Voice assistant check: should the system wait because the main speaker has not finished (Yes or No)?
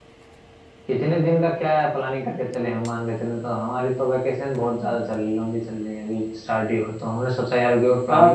No